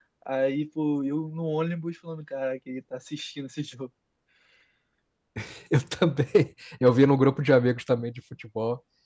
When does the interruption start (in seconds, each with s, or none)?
none